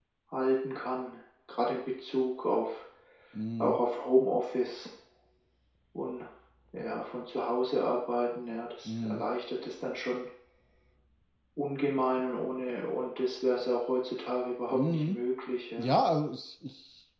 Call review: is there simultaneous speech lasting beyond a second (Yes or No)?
No